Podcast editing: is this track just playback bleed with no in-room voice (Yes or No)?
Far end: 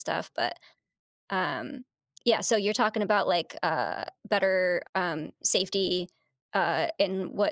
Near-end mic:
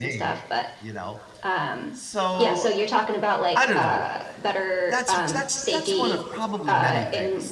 No